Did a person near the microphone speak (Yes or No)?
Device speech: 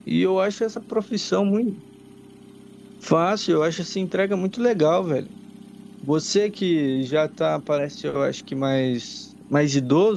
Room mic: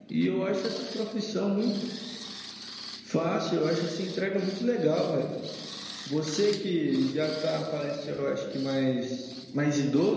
No